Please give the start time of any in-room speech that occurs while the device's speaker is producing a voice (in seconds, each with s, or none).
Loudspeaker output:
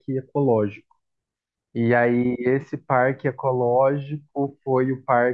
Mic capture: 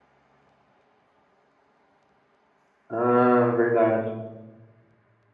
2.9 s